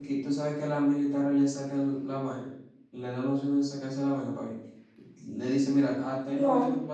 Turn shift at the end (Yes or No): No